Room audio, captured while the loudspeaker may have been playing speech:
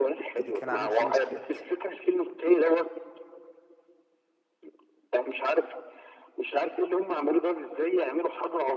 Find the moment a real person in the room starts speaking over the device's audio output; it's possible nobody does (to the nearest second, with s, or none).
0 s